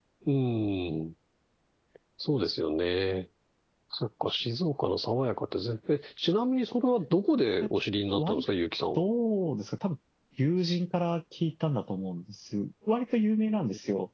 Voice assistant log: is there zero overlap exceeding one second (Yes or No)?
Yes